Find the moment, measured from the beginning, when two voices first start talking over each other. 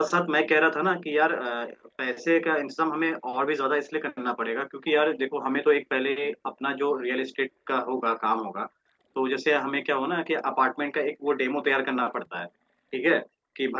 none

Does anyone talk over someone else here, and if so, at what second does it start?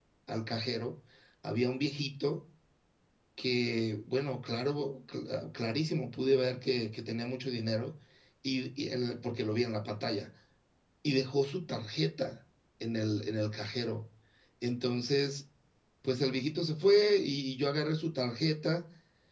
none

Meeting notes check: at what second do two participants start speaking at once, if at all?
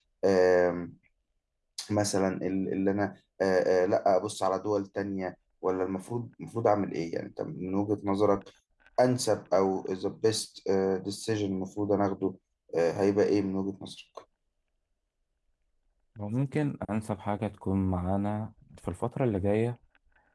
none

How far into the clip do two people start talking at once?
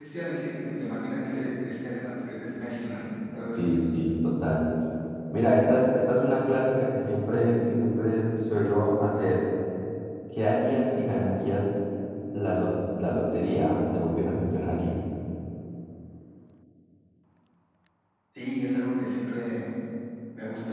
none

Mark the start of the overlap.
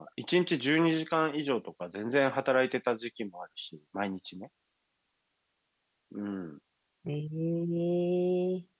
none

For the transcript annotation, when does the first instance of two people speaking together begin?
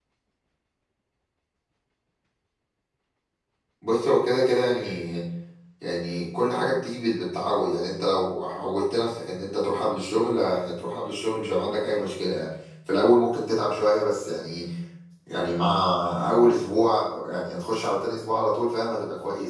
none

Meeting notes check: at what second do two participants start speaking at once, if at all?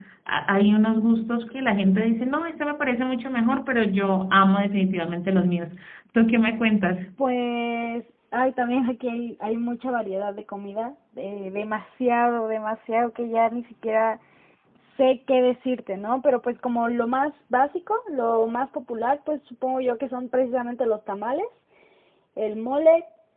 none

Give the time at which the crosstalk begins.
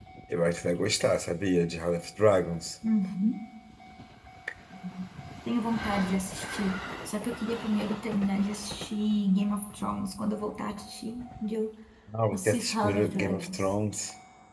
12 s

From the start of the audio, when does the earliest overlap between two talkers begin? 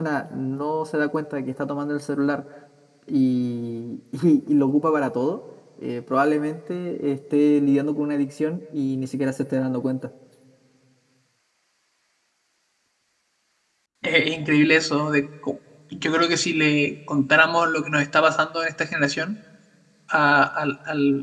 none

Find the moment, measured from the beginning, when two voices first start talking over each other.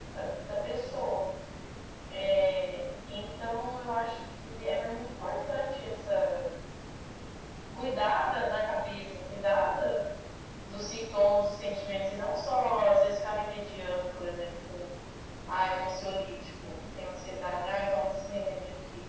none

